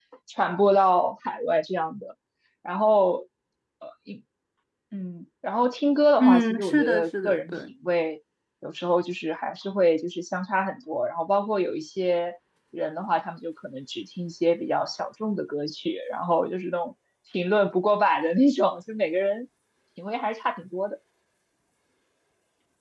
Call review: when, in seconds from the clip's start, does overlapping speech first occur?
6.2 s

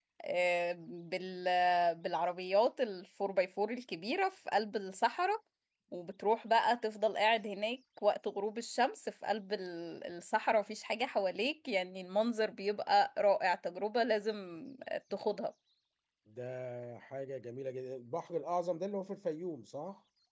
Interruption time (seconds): none

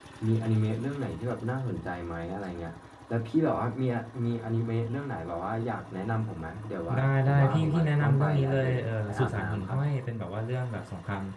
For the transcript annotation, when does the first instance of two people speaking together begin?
6.9 s

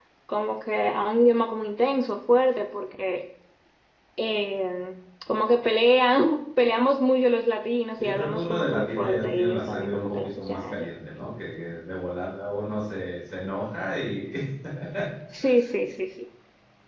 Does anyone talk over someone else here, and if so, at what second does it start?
8.0 s

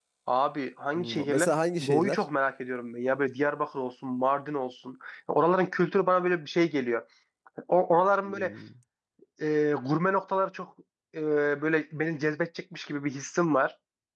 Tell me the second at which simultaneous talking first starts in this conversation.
1.0 s

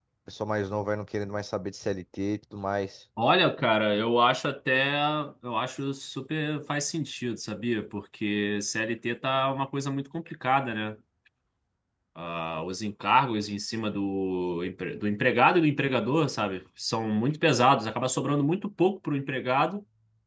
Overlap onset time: none

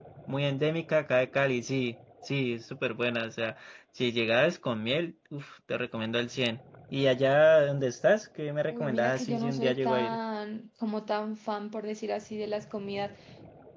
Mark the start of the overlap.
8.7 s

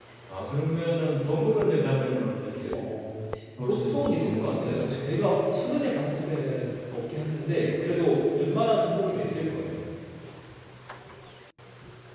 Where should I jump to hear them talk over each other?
3.6 s

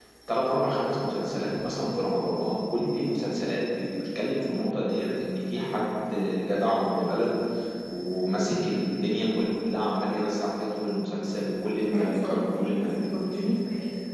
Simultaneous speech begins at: 11.8 s

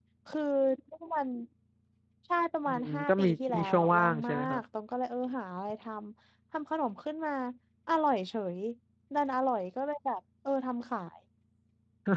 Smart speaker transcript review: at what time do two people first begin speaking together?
2.7 s

